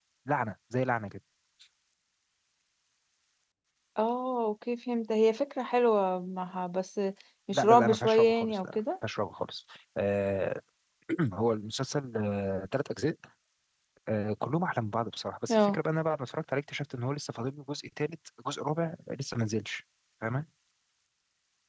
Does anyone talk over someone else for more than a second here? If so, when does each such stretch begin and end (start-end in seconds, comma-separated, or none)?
7.5-8.8